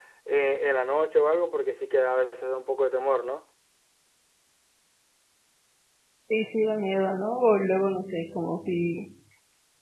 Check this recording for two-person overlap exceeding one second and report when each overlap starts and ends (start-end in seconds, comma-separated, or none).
none